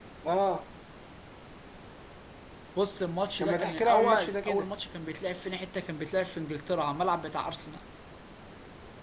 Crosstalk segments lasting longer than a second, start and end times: 3.4-4.7

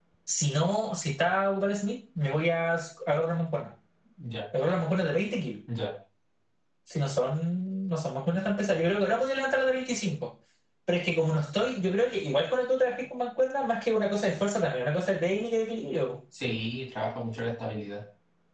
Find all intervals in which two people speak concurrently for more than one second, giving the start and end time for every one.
none

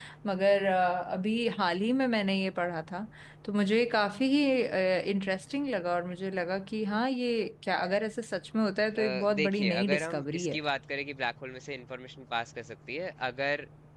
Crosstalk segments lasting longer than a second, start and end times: 9.0-10.6

